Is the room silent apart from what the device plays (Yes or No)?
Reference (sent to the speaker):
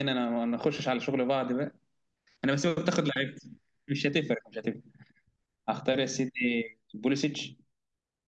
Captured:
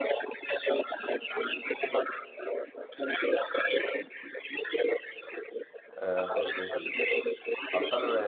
No